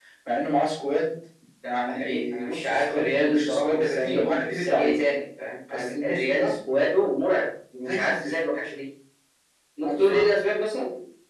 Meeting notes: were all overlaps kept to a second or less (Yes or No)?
No